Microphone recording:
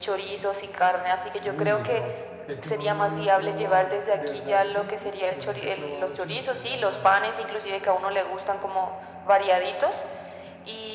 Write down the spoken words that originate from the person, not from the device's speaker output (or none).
Uy, no, ese no lo había probado. ¿De qué- de verdad es rico? Yo nunca he probado el chimichurri ahumado.